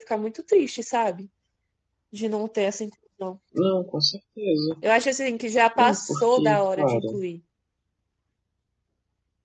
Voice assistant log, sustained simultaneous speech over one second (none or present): present